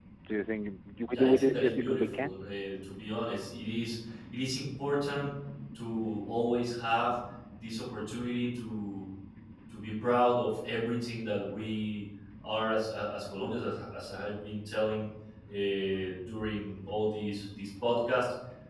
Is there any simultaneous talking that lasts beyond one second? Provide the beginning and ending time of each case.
1.1-2.3

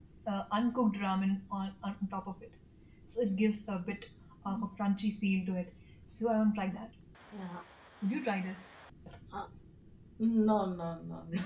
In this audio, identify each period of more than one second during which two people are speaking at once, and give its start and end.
none

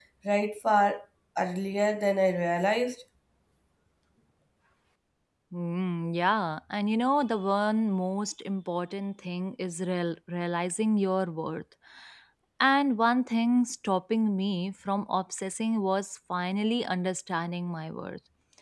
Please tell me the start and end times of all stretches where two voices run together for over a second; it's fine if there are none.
none

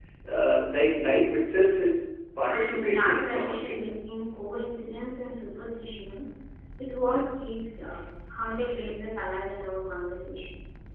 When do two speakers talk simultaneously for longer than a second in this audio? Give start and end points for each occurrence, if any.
2.5-3.8

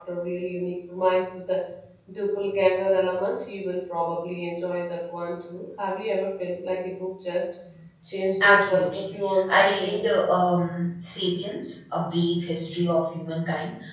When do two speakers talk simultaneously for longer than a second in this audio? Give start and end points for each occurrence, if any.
8.4-10.1

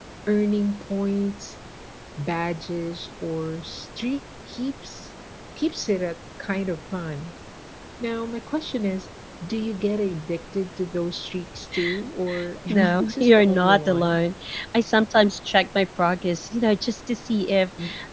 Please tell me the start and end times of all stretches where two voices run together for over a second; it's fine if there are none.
12.7-14.2

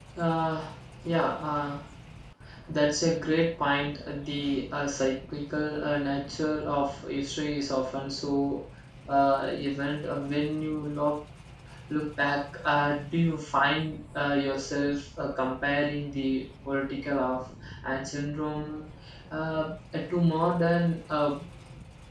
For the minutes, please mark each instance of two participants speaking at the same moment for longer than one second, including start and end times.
none

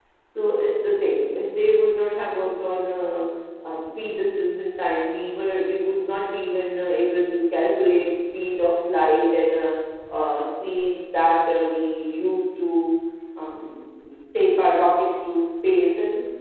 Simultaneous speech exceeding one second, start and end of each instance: none

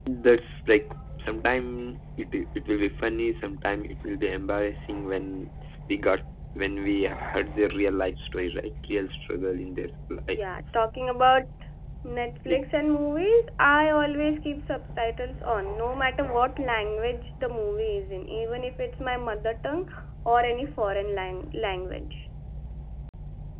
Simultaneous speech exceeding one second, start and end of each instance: none

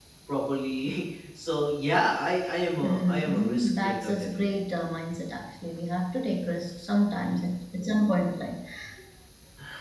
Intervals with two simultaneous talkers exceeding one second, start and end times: 2.8-4.5

